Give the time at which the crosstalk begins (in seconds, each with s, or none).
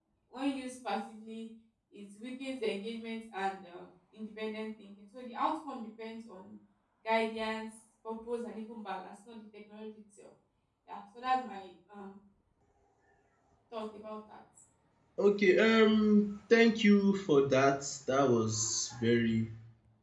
none